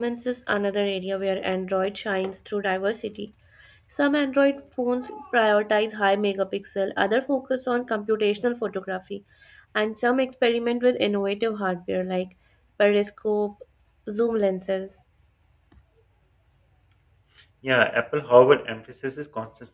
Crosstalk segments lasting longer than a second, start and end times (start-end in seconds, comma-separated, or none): none